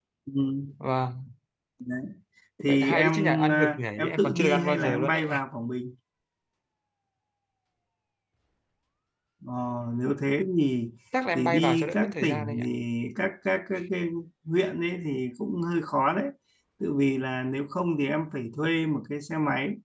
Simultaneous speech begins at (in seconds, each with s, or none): 2.6 s